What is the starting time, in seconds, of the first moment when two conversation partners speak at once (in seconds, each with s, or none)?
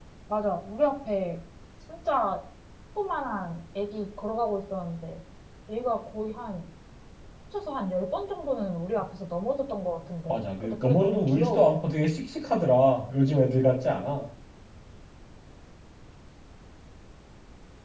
10.3 s